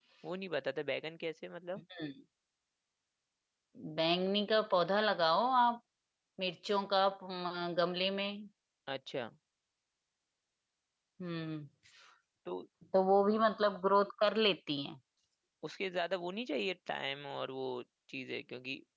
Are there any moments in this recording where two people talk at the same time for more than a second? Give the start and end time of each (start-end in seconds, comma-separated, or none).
none